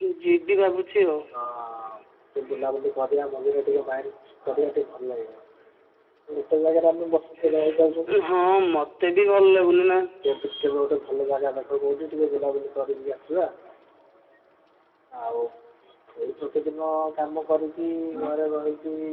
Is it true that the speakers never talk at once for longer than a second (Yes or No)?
Yes